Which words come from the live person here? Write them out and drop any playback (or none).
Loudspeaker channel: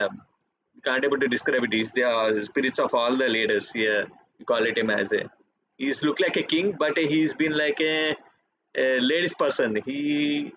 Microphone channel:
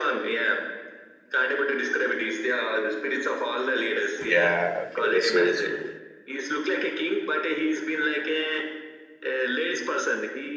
Yeah. Okay. That's true. That's true.